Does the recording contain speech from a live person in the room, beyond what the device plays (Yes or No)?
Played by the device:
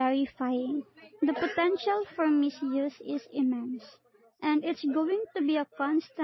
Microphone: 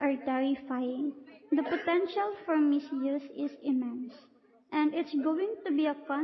No